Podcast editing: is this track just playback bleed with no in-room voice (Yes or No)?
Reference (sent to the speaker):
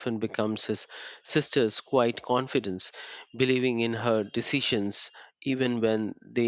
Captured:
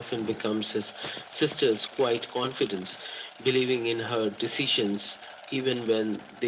Yes